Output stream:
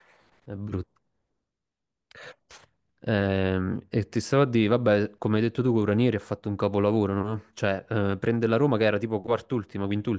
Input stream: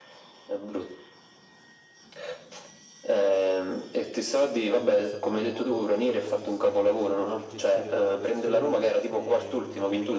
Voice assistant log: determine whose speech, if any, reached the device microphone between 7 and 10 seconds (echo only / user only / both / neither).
both